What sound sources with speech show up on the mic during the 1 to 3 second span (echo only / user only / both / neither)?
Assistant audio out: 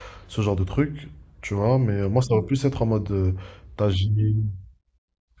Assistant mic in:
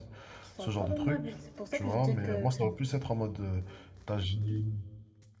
both